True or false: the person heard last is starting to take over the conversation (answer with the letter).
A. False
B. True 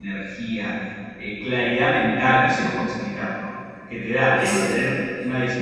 A